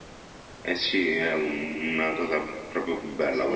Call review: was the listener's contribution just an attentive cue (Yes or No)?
Yes